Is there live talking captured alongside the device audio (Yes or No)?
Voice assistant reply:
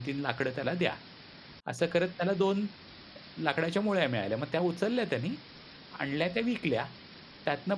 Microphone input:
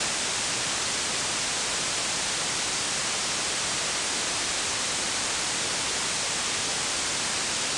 No